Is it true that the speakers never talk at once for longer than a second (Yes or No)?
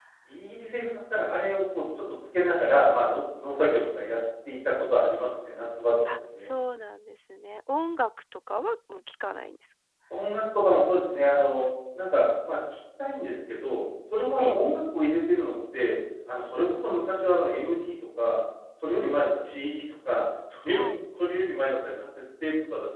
Yes